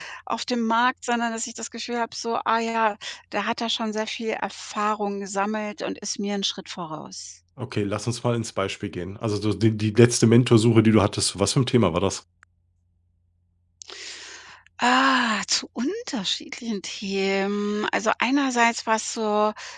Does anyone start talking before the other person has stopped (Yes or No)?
No